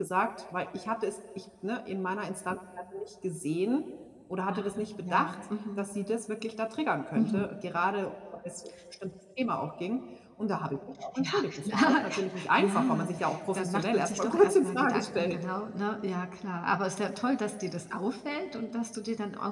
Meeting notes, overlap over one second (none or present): present